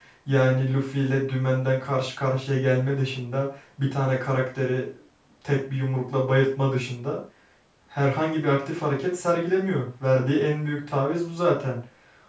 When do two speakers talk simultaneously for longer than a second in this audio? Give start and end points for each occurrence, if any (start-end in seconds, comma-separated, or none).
none